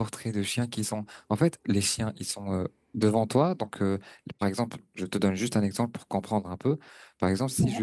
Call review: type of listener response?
listening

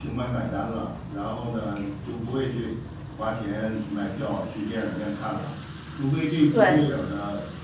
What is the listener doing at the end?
listening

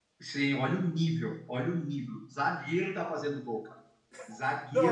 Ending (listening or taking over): taking over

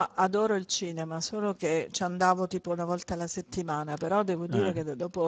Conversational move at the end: listening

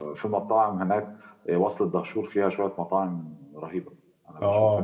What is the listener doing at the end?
taking over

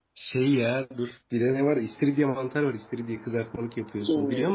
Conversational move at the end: taking over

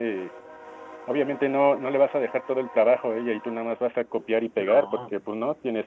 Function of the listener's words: listening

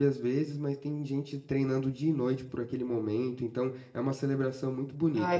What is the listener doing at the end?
taking over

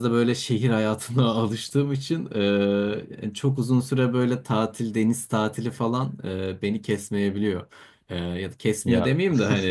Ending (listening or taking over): listening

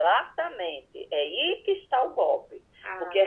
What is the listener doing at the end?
listening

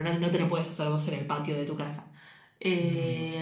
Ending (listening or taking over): listening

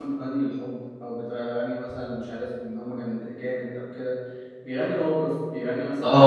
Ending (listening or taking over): taking over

